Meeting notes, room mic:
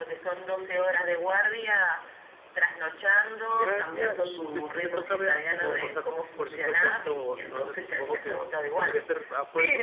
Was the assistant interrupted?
Yes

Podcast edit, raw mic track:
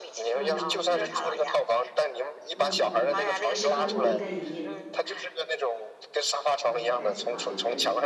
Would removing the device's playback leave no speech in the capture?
No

